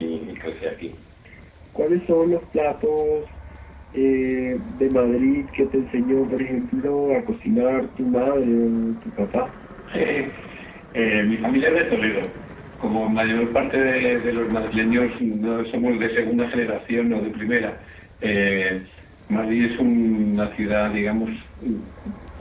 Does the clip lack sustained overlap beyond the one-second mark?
Yes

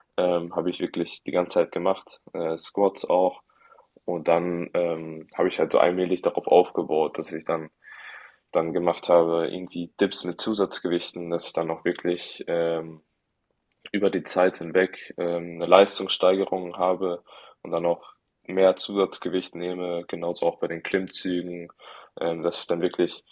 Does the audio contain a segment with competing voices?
No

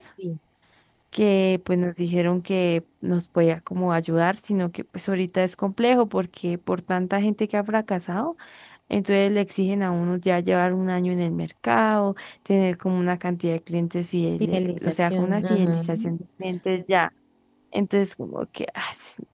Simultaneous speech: Yes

